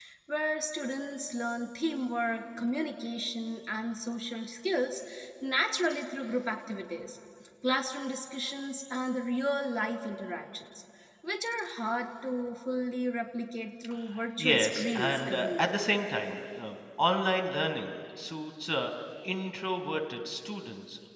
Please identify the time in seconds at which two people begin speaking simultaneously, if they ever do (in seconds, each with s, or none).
14.4 s